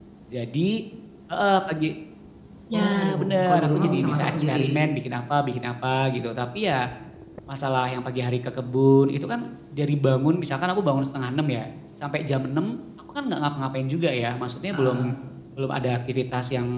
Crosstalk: present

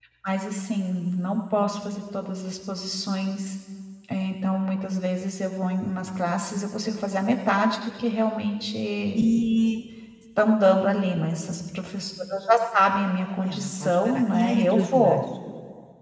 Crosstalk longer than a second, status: present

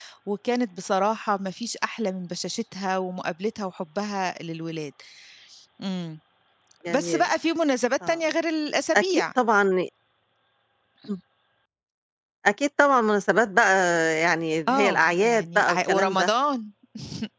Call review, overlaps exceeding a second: present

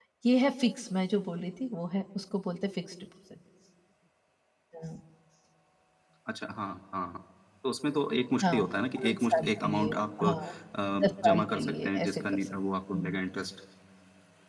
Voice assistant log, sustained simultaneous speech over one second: present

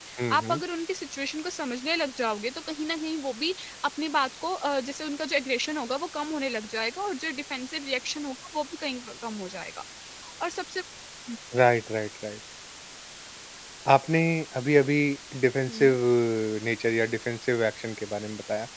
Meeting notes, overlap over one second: none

